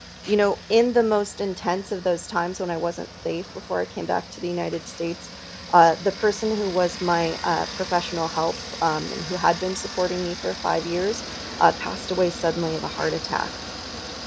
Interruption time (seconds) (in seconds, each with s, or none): none